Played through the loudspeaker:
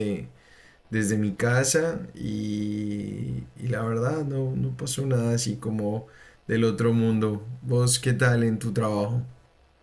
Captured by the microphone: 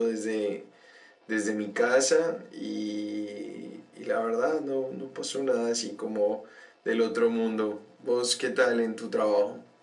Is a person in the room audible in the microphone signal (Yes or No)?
No